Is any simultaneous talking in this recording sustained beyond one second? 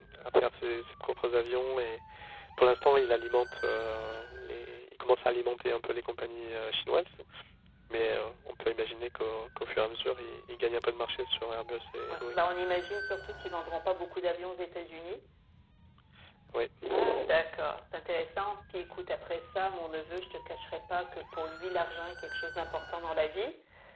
No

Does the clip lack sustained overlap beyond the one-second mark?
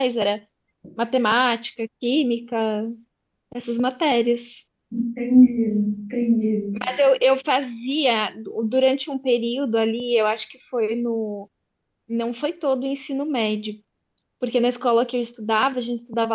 Yes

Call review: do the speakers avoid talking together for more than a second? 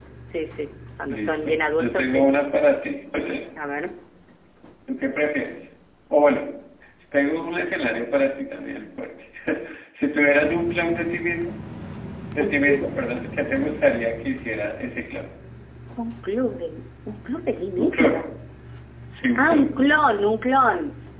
No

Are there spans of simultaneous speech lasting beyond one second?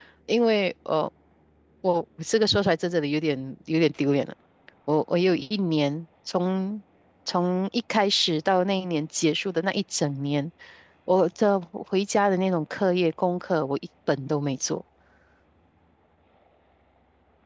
No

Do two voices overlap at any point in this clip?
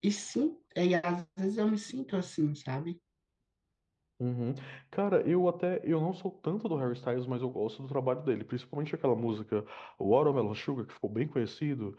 No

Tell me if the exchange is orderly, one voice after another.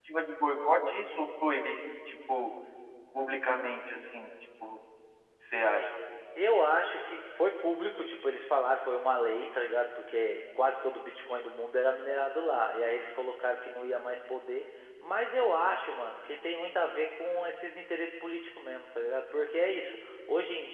Yes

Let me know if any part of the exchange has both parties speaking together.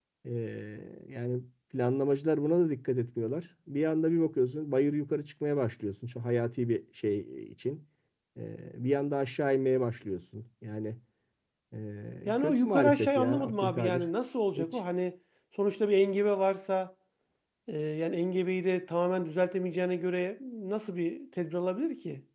Yes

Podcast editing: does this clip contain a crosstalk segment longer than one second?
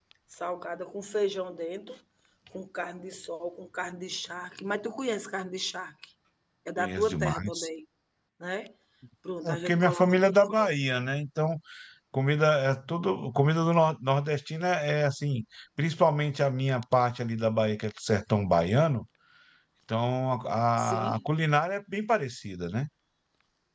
Yes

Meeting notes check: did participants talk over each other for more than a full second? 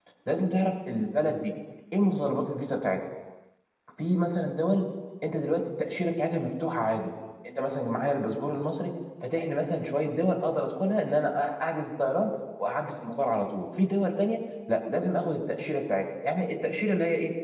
No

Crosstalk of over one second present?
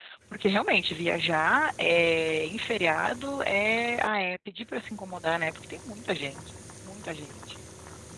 No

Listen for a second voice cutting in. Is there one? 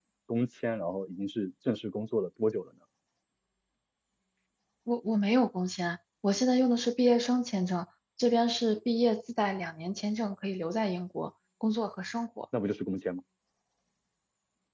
No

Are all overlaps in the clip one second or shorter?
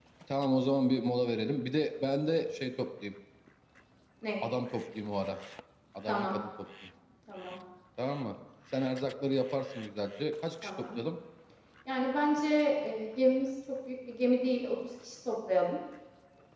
Yes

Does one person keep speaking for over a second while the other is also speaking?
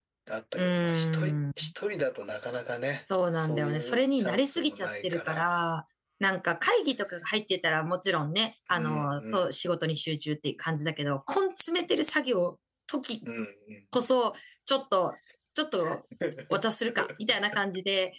Yes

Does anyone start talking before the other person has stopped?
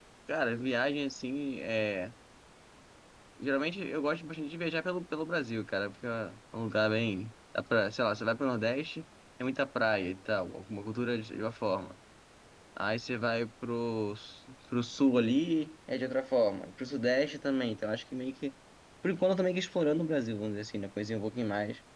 No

